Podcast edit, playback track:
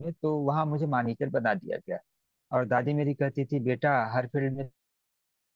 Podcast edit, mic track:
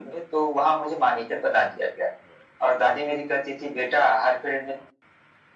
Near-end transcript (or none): none